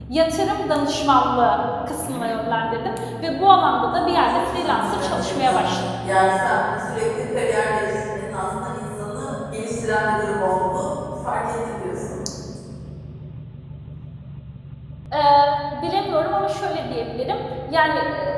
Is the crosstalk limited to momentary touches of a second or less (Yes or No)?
No